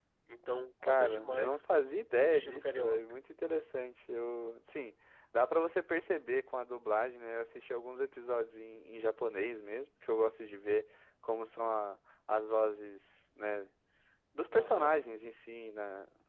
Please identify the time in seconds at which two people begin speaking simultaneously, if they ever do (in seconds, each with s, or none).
0.8 s